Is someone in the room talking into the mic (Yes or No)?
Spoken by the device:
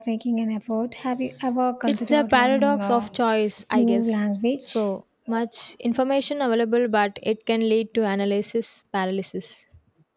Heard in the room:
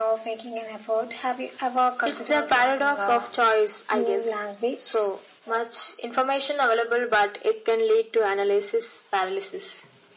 No